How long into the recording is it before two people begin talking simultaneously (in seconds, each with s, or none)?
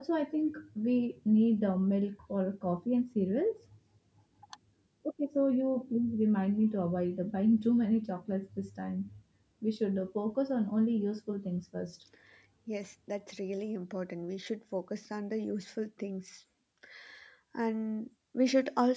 none